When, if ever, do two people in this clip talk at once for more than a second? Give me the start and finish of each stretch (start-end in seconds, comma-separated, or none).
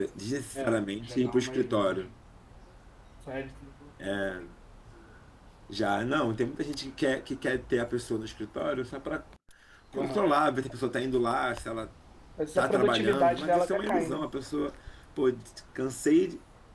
0.6-2.1, 12.6-14.2